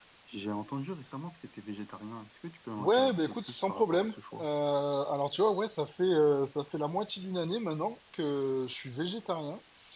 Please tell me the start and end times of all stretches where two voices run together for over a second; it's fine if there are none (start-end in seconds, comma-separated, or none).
2.8-4.5